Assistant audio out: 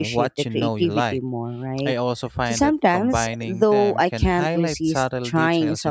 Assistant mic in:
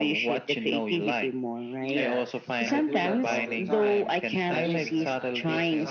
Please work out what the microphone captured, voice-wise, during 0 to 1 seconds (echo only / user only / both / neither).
echo only